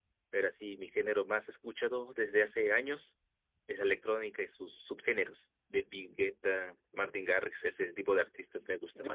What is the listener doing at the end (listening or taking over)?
taking over